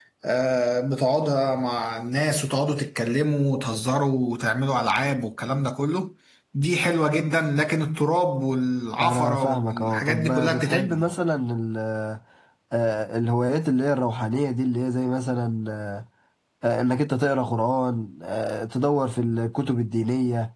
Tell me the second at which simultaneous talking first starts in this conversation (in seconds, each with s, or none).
9.0 s